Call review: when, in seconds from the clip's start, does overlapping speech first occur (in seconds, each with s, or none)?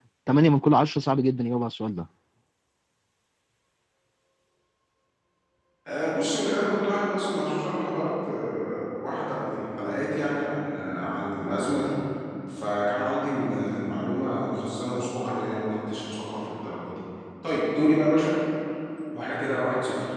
none